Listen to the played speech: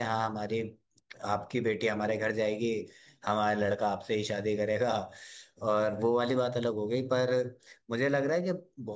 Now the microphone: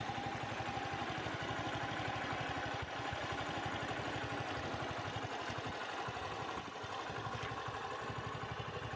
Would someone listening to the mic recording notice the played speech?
No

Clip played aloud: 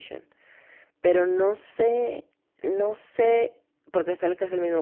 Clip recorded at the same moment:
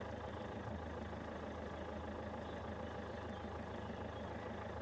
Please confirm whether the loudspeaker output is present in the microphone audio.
No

